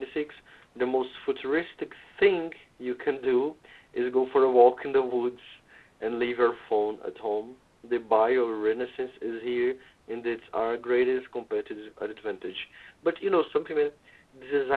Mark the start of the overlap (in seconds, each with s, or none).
none